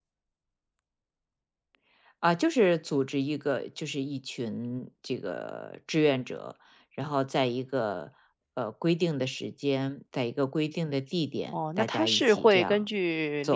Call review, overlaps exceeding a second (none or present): present